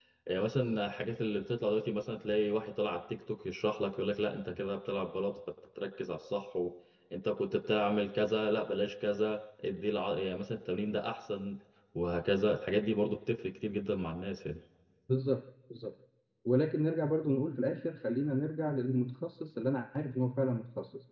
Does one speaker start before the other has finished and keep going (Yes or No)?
No